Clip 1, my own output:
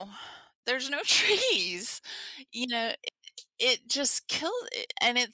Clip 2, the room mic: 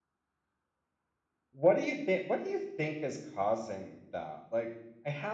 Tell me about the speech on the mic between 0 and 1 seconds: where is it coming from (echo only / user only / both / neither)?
neither